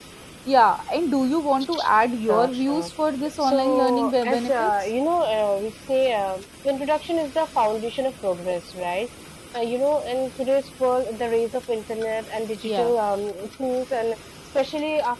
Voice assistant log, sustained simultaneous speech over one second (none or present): present